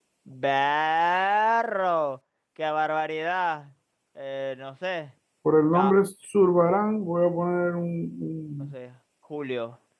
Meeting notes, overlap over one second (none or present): none